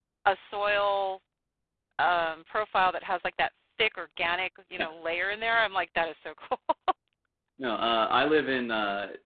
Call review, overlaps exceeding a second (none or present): none